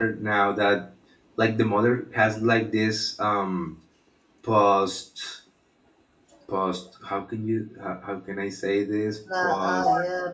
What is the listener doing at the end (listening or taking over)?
taking over